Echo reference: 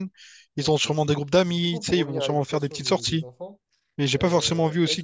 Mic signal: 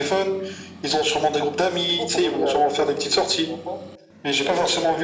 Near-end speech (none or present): none